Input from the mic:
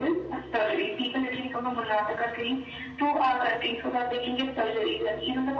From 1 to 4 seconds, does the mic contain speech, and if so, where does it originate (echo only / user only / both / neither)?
echo only